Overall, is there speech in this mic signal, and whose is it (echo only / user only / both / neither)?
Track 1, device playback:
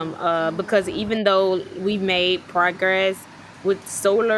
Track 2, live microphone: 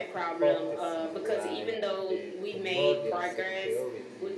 both